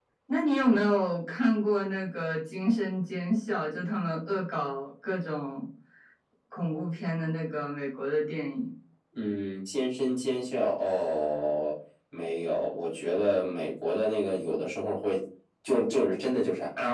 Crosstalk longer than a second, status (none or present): none